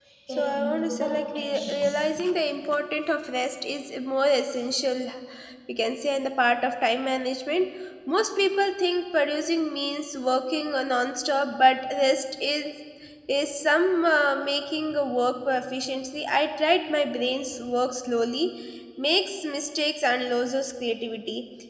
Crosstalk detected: Yes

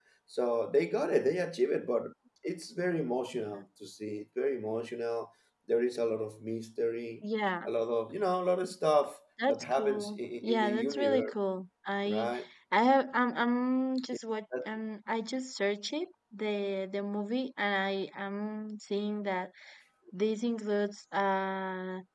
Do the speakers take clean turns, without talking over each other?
No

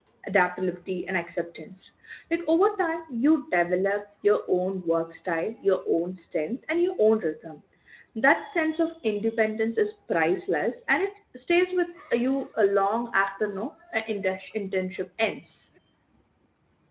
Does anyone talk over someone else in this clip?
No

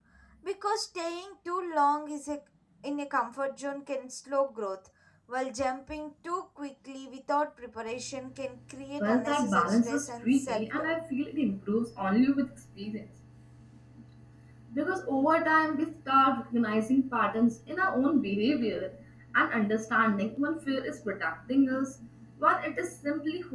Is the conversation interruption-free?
No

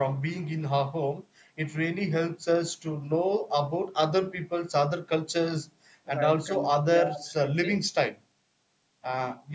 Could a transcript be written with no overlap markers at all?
No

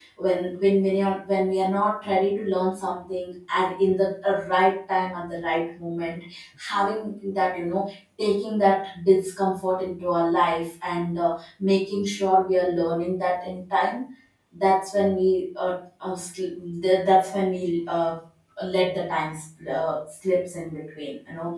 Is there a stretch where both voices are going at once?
No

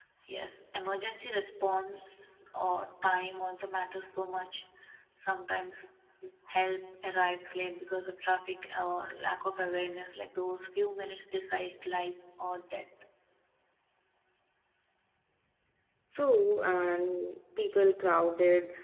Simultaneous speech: No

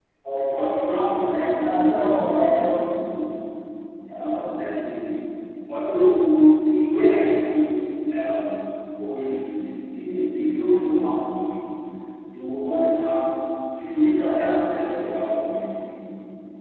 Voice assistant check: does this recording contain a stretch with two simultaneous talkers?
Yes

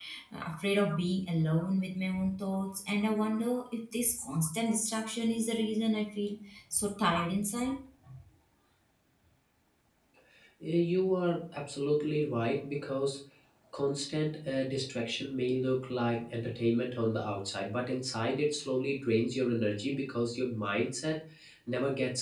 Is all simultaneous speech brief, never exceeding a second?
Yes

